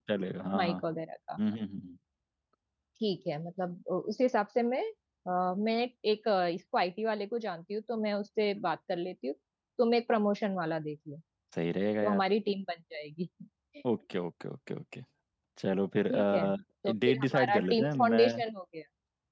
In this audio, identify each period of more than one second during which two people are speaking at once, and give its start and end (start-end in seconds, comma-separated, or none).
17.1-18.4